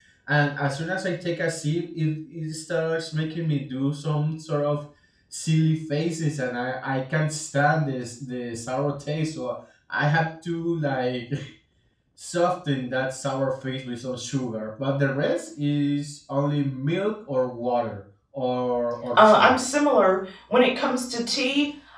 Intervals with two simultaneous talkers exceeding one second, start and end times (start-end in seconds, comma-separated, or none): none